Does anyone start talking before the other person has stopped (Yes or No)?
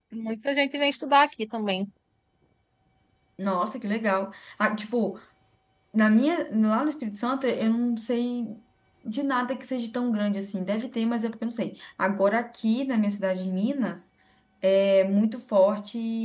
No